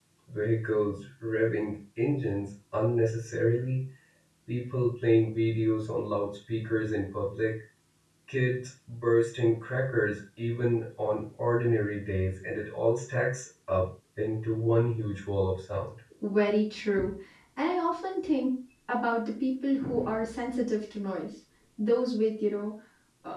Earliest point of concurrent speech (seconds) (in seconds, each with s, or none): none